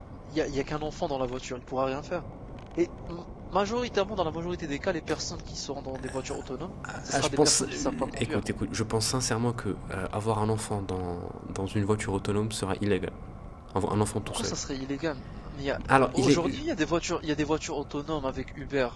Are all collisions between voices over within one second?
No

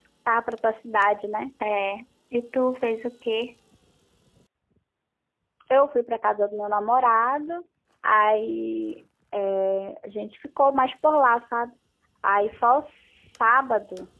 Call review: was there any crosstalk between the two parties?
No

